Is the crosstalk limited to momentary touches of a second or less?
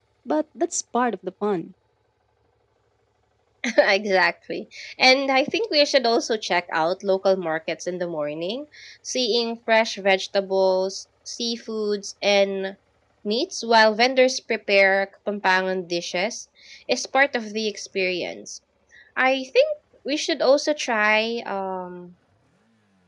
Yes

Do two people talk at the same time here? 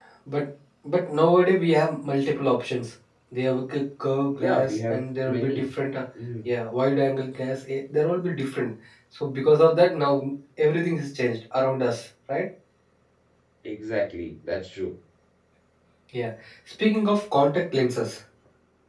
Yes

